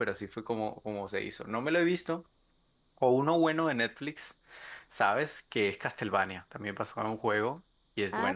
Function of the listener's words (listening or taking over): taking over